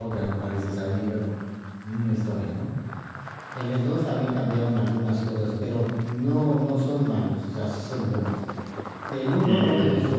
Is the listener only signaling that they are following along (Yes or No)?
Yes